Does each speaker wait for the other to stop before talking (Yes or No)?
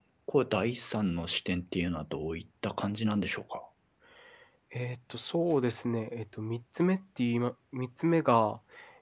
Yes